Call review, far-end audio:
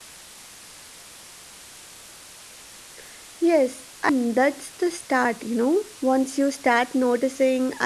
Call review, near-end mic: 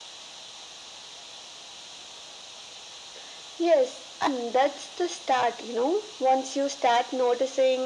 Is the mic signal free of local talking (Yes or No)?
Yes